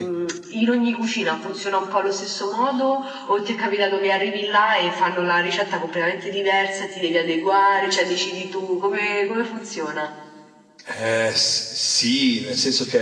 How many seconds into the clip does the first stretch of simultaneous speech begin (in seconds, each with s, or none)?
none